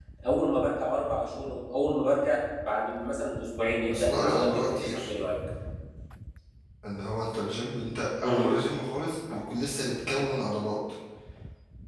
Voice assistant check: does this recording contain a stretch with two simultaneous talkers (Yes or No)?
Yes